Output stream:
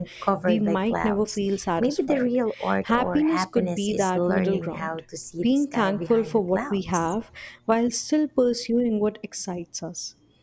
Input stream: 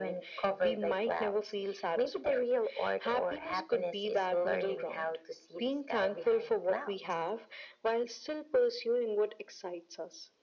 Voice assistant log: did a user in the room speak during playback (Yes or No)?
No